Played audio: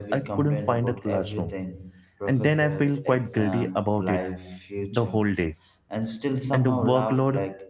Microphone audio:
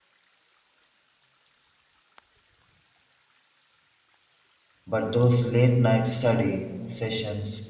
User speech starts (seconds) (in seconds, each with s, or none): 4.8 s